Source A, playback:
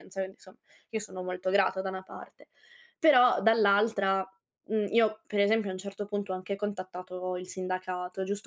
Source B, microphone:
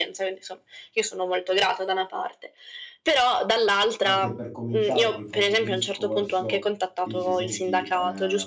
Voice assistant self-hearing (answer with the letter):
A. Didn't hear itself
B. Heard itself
B